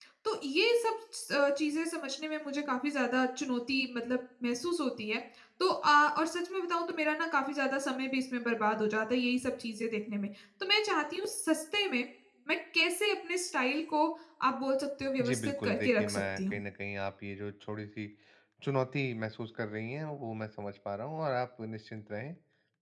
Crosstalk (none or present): present